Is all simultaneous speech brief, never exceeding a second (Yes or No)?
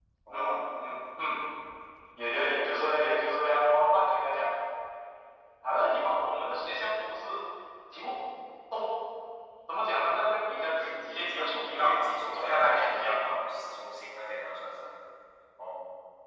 No